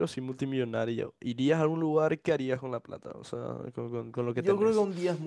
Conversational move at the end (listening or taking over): taking over